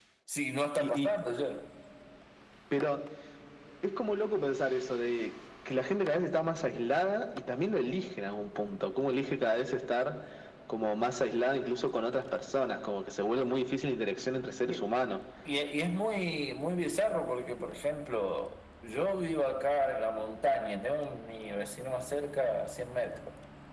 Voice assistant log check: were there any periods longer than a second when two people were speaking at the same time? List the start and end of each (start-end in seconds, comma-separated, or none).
none